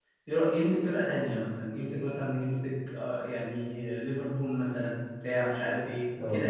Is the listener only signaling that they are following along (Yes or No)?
Yes